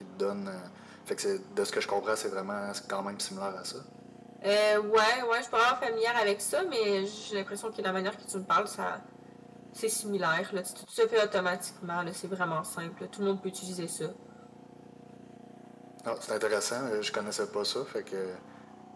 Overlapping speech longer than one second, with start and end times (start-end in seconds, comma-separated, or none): none